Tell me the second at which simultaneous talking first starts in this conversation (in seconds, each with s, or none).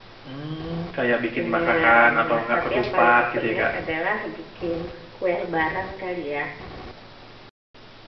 1.4 s